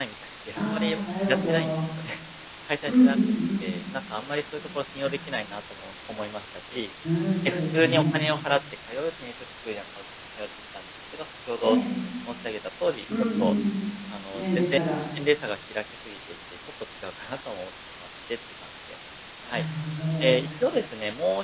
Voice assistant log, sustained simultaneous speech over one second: present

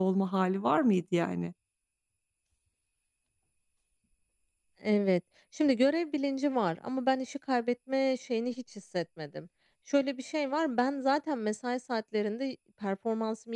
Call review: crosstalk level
none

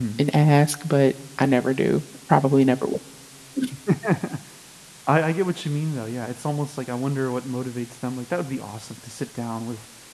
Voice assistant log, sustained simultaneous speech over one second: none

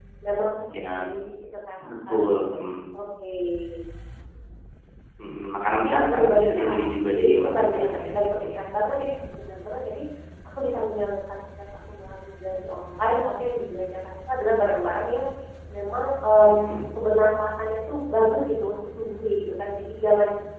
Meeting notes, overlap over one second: present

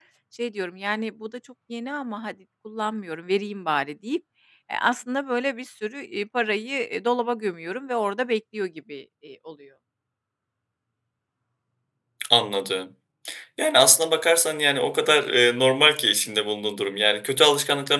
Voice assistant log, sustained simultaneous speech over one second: none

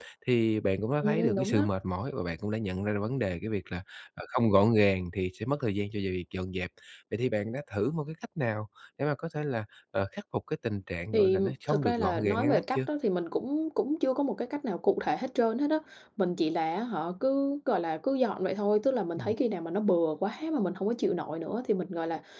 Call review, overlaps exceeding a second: present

